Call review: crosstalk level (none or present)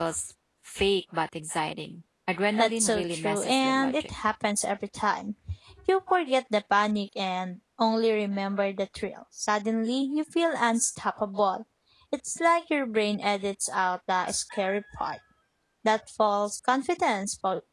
present